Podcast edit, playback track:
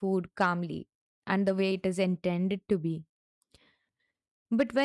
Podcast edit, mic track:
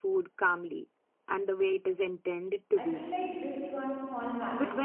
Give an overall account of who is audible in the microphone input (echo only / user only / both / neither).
both